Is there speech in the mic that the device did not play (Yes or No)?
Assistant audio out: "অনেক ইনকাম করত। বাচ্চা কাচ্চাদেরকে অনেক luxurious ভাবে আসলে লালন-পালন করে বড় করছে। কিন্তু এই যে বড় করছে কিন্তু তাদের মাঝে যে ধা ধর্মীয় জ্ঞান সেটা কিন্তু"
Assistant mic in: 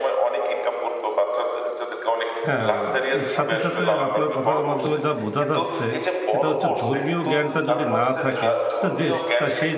Yes